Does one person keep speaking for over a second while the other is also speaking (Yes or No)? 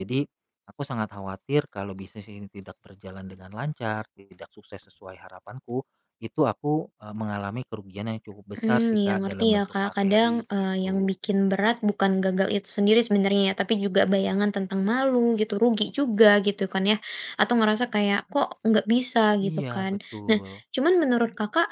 Yes